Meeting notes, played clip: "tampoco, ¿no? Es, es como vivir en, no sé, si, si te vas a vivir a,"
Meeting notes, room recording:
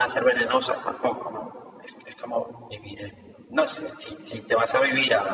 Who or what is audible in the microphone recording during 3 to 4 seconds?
echo only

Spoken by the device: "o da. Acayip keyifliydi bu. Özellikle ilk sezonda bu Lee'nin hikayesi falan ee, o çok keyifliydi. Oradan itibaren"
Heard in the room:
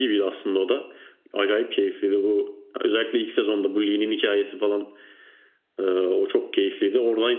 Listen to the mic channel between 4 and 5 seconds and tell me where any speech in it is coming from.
echo only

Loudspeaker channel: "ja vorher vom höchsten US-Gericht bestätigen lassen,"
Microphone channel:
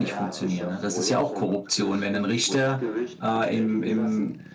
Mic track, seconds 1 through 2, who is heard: both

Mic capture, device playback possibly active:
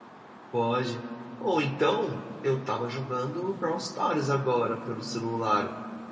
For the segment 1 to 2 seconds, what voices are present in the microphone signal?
user only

